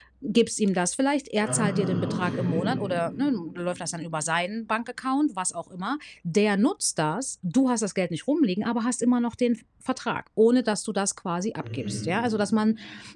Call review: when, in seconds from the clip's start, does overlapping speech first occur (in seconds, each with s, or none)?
1.4 s